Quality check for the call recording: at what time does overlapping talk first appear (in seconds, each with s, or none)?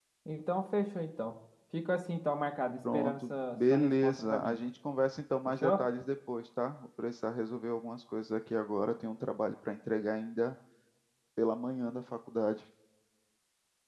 2.9 s